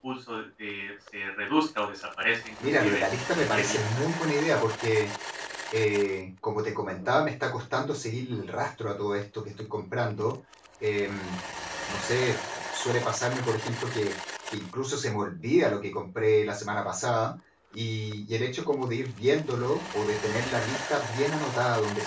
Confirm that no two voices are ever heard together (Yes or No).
No